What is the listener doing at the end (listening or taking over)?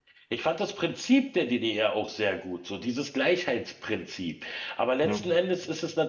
listening